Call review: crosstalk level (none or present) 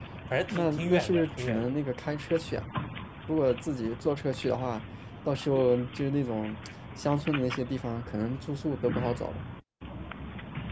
present